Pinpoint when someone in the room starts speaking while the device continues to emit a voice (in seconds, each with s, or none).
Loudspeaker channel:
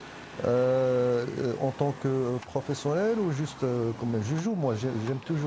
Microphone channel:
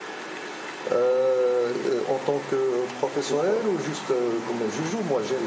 3.2 s